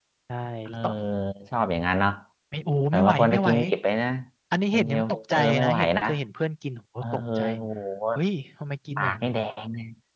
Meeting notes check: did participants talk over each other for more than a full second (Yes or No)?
Yes